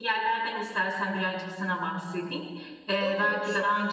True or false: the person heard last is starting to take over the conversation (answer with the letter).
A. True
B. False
B